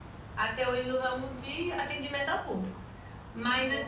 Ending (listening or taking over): listening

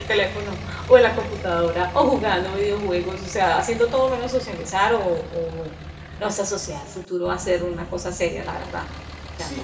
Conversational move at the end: taking over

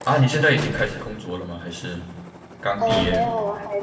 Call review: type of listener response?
taking over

